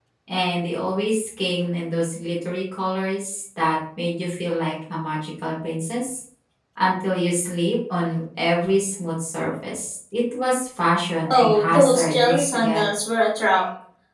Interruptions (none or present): present